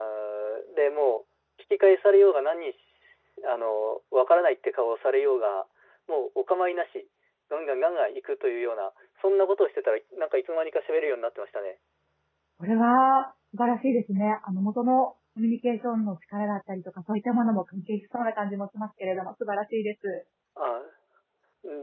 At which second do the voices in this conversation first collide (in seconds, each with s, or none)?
none